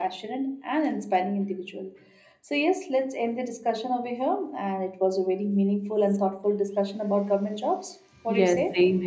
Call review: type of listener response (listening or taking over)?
taking over